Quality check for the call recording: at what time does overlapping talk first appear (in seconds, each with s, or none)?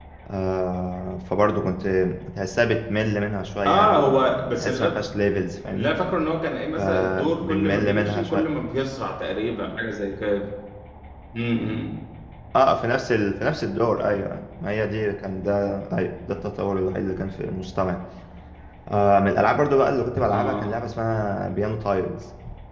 3.6 s